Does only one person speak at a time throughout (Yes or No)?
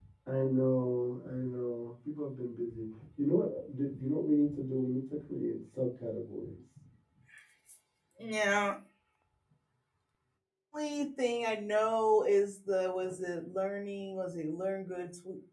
Yes